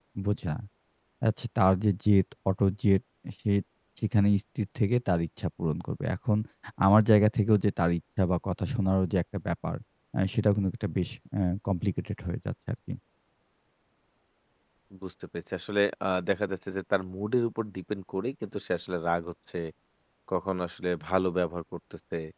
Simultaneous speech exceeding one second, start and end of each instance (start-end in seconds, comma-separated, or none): none